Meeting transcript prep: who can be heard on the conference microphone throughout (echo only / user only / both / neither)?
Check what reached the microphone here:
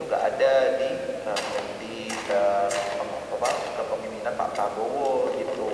echo only